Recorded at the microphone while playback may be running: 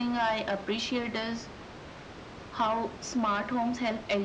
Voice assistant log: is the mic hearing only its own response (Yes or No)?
Yes